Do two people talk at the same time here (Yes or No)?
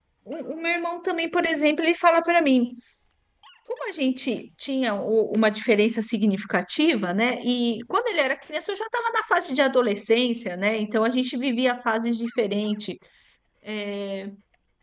No